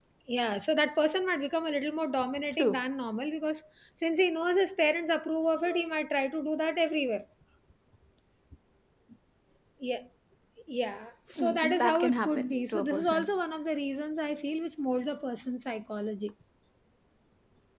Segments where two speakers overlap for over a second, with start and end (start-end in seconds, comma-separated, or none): 11.4-13.3